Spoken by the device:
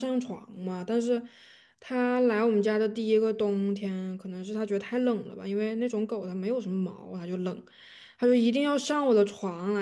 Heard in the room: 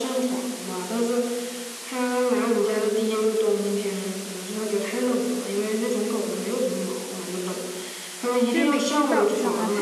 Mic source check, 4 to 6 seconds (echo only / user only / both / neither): echo only